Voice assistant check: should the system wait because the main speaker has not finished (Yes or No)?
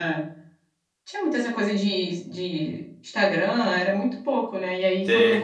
Yes